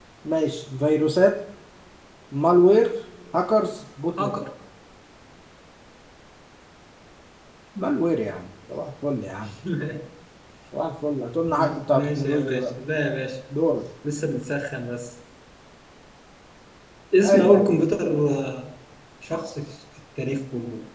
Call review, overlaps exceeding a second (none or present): present